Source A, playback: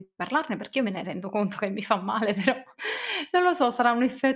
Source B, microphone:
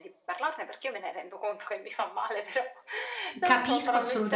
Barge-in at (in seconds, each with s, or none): 3.4 s